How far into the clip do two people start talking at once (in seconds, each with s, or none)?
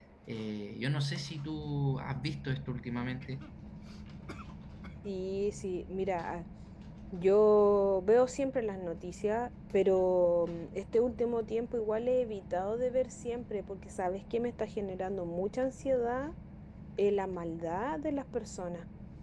none